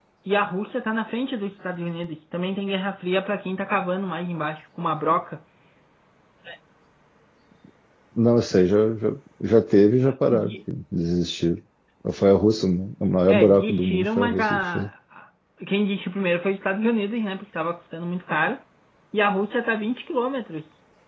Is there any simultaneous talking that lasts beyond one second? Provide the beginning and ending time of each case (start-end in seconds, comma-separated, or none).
13.3-14.9